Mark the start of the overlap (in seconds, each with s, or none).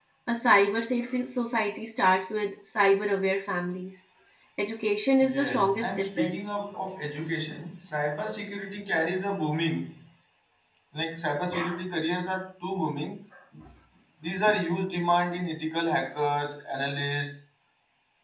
5.2 s